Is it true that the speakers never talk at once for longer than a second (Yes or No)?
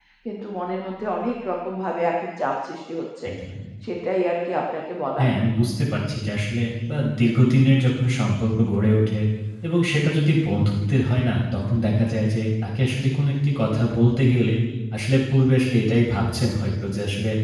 Yes